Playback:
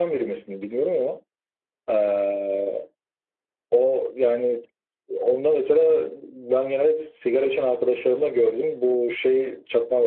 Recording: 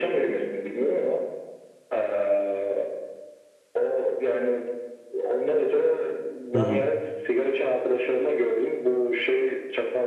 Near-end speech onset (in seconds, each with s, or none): 6.5 s